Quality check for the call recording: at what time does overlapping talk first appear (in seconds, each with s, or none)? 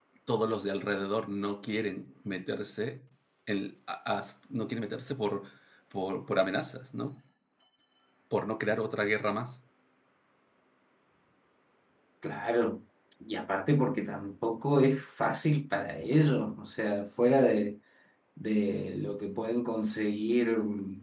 none